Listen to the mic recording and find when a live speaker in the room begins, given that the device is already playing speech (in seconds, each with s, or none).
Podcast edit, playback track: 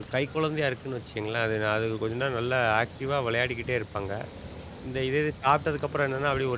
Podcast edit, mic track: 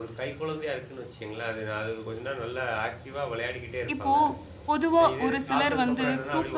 3.9 s